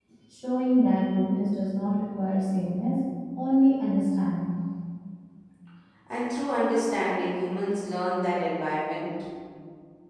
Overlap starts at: none

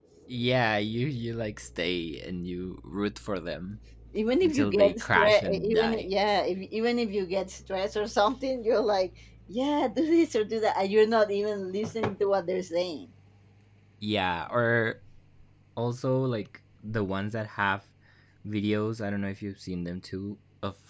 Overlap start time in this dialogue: 4.4 s

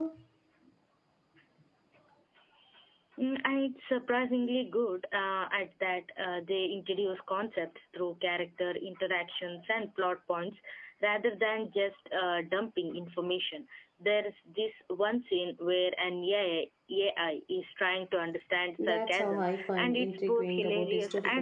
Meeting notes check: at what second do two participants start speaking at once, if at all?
18.8 s

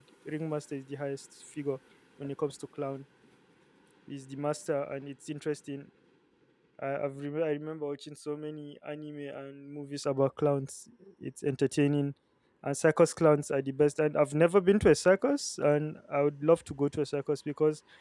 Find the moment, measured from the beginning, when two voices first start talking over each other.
none

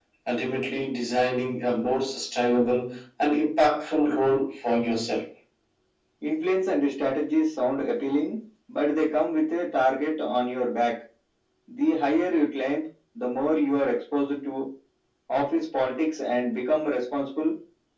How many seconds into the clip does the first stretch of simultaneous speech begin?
none

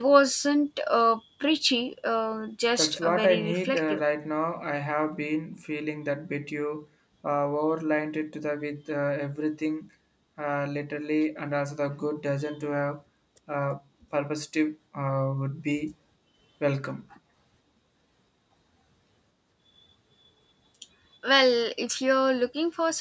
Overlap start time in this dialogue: 2.8 s

